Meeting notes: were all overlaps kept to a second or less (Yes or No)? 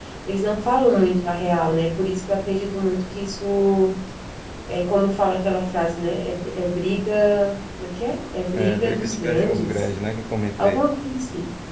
No